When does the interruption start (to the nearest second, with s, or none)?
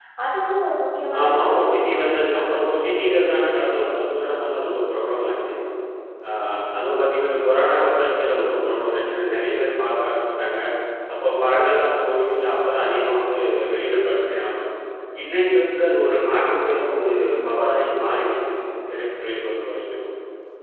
1 s